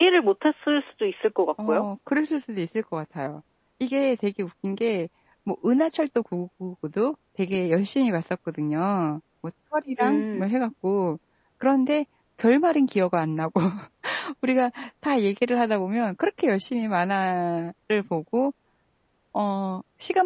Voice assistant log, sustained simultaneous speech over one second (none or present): none